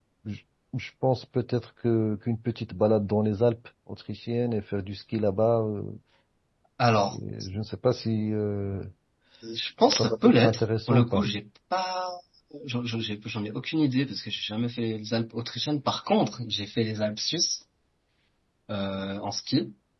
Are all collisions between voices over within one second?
No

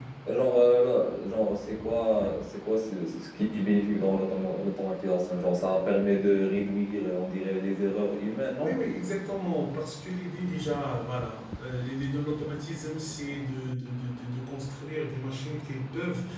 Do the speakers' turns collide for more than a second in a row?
No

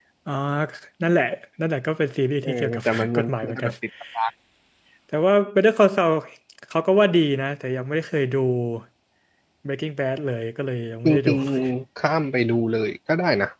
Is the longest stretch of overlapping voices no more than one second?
No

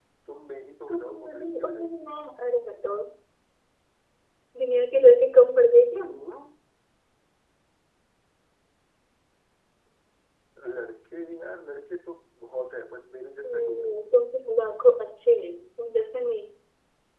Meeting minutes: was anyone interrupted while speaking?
Yes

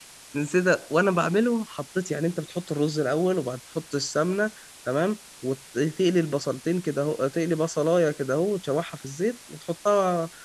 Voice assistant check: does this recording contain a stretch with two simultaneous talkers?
No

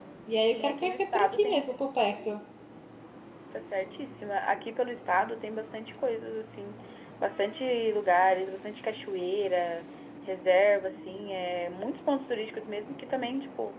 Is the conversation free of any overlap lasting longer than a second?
No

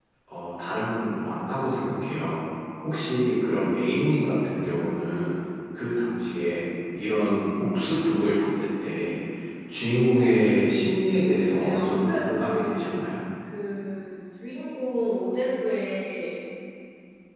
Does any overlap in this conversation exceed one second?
Yes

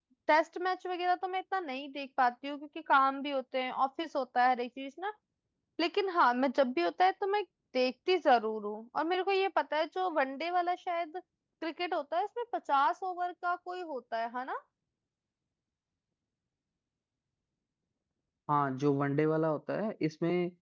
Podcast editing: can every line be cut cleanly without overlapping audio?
Yes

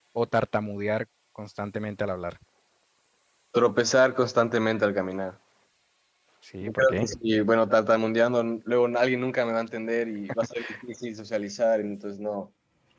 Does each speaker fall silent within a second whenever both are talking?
Yes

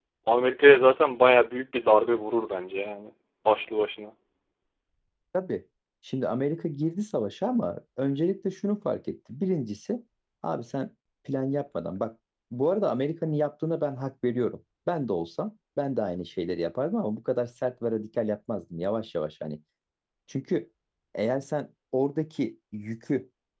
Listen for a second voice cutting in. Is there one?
No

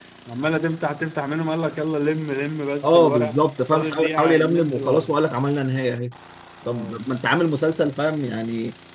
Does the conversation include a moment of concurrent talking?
Yes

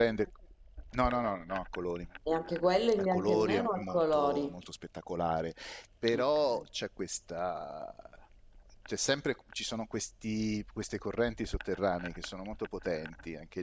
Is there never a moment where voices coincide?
No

